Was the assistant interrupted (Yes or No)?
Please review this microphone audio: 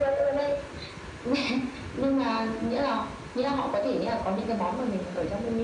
No